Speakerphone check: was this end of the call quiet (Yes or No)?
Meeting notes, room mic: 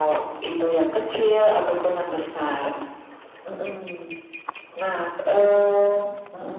Yes